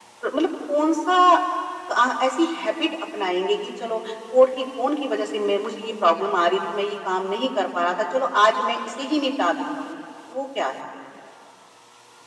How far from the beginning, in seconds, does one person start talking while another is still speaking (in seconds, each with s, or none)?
none